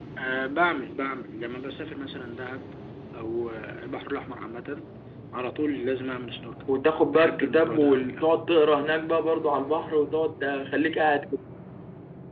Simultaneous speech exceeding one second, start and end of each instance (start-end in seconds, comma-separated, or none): 7.1-8.3